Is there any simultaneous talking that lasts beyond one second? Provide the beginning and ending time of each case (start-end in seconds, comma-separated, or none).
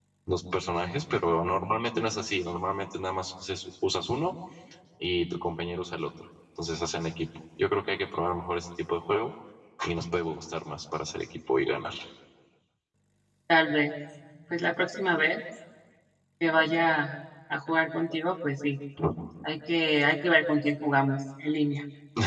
none